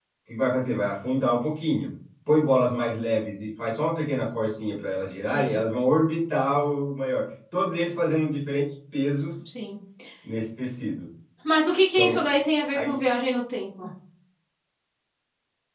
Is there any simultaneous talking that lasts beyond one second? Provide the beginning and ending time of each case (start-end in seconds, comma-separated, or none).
none